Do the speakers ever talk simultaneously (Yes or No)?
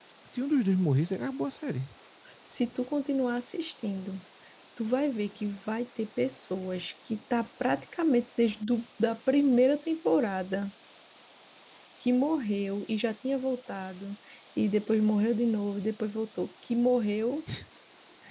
No